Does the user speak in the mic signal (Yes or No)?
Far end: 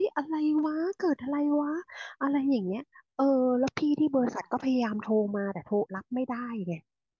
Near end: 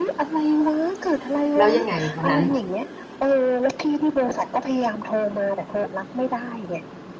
Yes